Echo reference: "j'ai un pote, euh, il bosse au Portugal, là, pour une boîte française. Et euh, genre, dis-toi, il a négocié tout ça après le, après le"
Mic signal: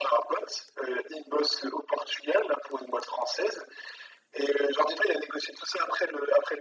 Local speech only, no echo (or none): none